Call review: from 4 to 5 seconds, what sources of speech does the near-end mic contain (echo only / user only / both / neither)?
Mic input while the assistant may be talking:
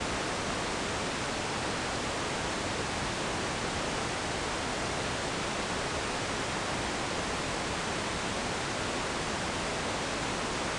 neither